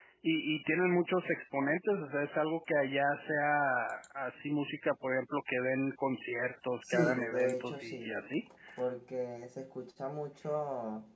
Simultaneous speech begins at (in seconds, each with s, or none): 6.9 s